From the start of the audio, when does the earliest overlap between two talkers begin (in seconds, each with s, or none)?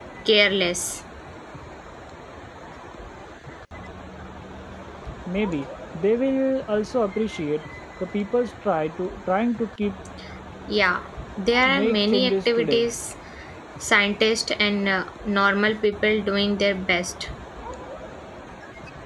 11.6 s